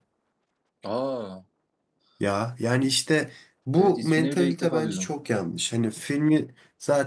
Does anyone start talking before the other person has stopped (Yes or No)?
Yes